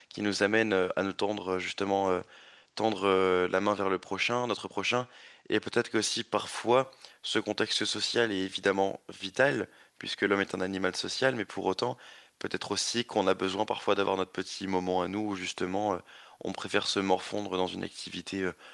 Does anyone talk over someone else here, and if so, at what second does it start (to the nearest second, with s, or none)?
none